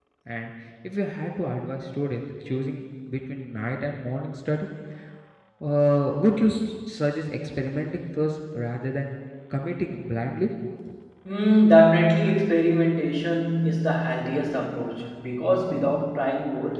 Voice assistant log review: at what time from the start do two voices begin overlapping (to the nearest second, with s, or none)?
none